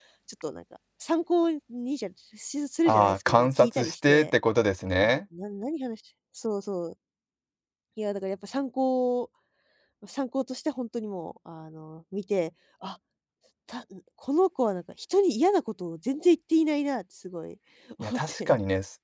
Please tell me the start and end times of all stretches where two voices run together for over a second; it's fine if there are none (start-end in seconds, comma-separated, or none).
2.9-4.3